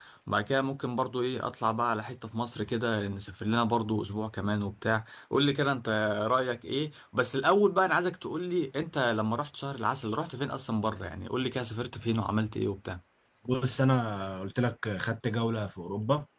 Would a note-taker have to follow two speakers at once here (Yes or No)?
No